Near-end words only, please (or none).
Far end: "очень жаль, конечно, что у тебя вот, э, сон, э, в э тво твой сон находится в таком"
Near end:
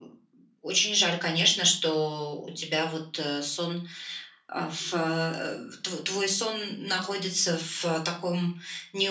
none